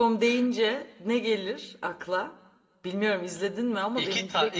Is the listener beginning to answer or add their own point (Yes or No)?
Yes